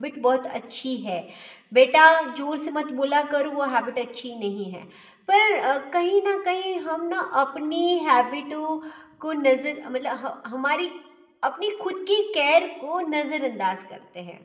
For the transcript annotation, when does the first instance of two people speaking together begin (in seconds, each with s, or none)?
none